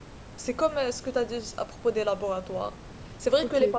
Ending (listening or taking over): listening